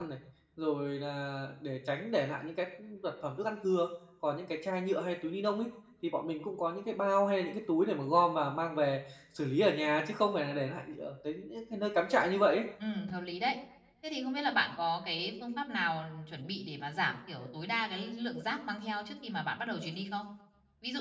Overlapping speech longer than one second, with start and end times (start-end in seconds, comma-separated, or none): none